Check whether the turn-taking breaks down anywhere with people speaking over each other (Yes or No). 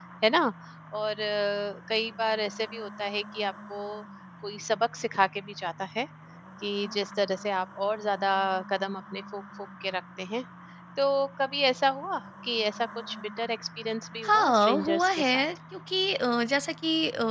Yes